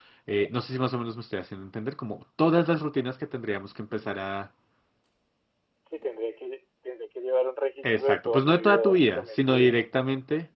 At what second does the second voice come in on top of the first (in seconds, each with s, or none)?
7.8 s